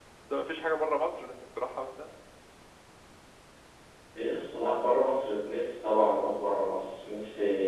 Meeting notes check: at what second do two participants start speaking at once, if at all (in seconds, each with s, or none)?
none